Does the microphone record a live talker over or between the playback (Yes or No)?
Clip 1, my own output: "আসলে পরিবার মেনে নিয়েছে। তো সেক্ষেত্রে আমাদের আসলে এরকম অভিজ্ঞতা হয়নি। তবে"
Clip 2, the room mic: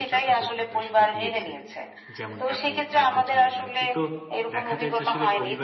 Yes